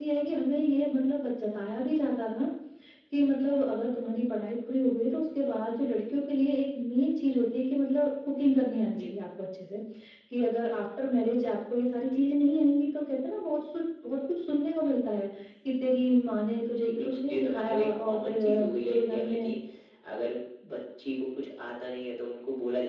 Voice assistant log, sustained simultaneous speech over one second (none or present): present